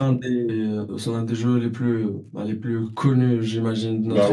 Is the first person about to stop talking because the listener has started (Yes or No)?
Yes